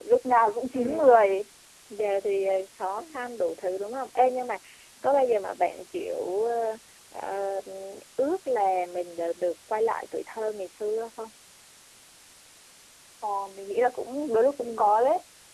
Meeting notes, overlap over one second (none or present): none